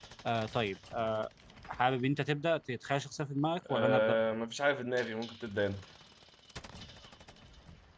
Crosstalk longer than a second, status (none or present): none